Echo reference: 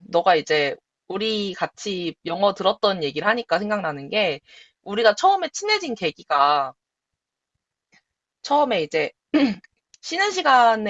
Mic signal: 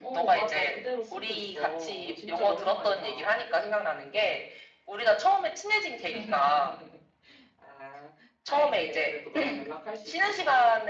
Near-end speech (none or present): present